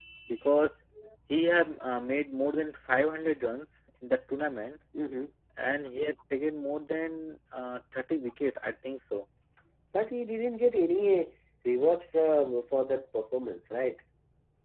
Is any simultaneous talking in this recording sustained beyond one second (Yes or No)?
No